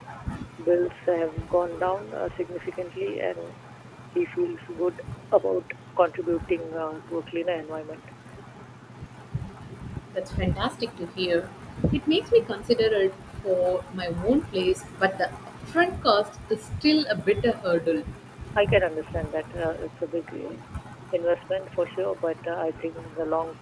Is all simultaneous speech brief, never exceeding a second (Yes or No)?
Yes